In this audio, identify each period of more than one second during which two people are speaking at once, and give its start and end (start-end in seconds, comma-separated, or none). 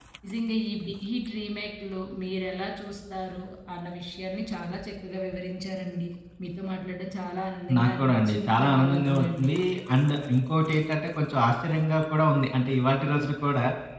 7.8-9.5